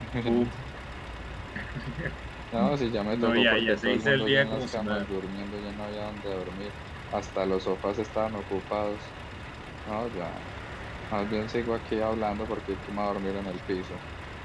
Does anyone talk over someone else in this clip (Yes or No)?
Yes